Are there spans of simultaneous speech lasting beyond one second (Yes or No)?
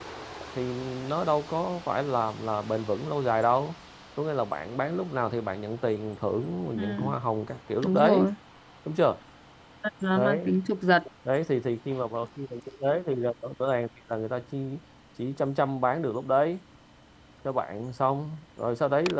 No